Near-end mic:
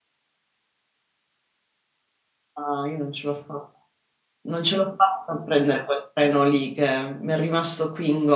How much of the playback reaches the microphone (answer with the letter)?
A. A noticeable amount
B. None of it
B